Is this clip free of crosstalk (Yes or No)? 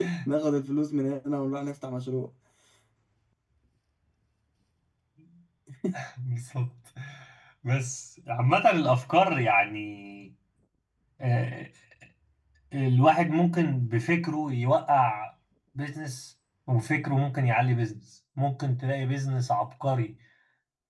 Yes